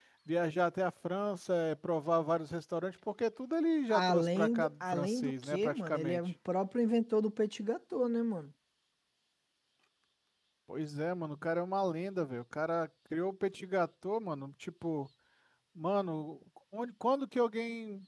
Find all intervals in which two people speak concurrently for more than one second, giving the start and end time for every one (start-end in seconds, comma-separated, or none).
3.9-6.2